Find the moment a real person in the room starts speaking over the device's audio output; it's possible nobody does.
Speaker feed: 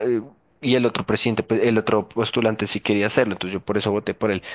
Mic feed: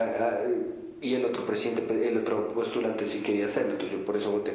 none

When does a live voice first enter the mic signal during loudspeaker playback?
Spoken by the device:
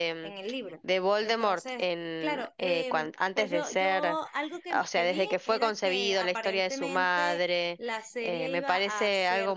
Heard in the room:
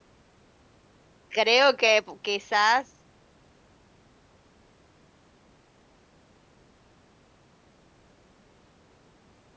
1.3 s

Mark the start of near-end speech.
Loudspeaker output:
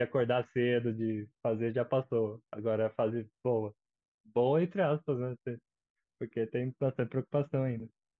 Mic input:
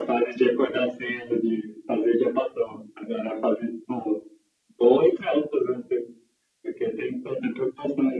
none

